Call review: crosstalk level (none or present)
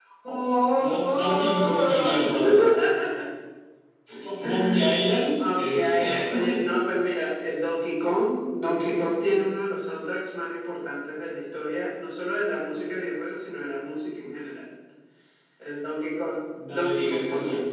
present